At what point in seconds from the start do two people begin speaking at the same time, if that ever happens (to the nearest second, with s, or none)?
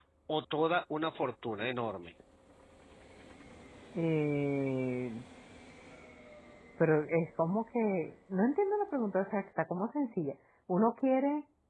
none